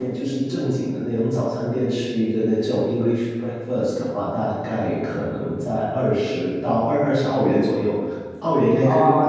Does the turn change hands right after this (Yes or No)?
No